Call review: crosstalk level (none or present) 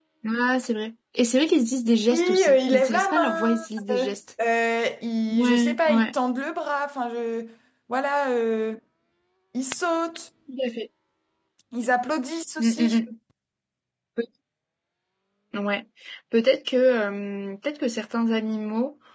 present